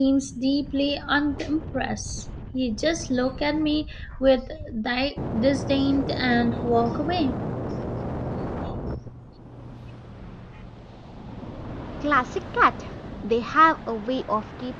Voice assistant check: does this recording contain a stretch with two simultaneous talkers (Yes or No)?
No